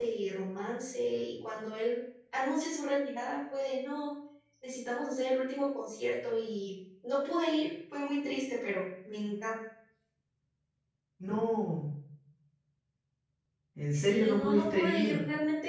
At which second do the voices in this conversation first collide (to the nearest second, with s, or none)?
14 s